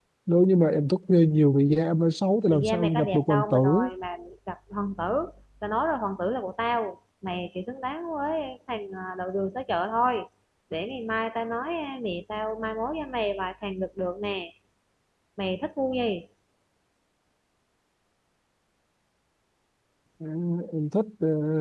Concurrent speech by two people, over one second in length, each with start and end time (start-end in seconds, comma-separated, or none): 2.5-3.9